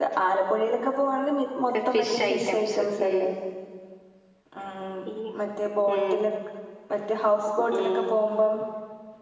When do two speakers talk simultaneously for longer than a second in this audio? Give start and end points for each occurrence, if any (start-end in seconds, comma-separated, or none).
1.9-3.2